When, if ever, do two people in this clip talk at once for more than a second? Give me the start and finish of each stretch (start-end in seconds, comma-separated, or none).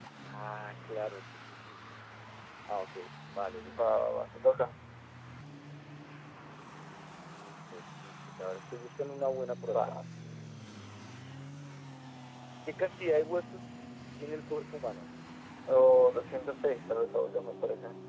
none